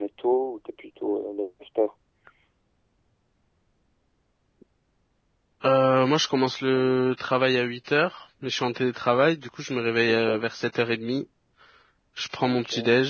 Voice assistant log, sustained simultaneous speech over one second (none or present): none